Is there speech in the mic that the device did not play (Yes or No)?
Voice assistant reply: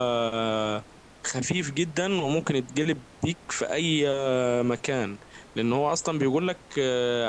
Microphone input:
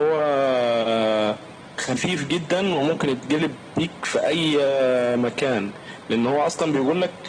No